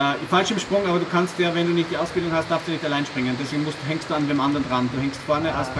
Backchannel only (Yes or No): No